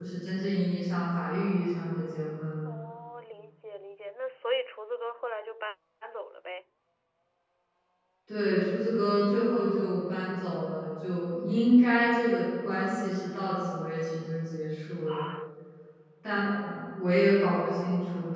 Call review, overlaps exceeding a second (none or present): none